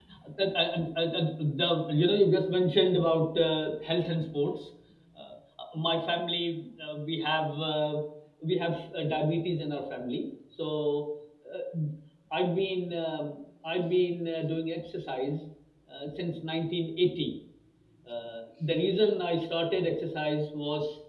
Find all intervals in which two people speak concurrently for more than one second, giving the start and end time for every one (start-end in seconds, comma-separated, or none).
none